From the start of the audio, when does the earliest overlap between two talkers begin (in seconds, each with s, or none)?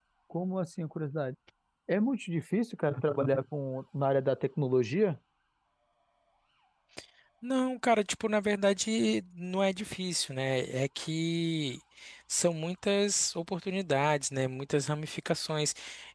none